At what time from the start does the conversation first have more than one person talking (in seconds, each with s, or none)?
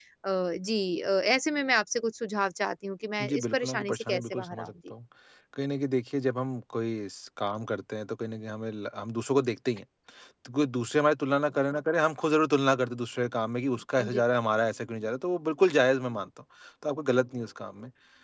3.2 s